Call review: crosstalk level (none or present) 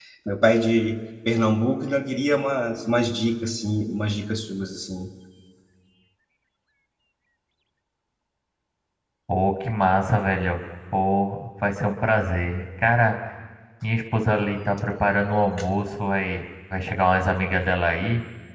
none